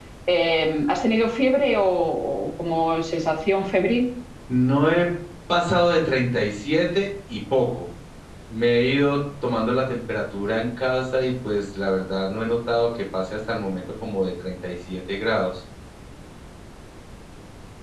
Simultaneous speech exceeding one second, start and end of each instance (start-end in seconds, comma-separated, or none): none